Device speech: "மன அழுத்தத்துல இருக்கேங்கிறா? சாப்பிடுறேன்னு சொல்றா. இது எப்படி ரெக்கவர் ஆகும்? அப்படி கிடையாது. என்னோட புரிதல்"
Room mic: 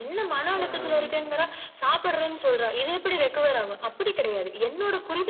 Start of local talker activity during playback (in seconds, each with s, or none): 0.6 s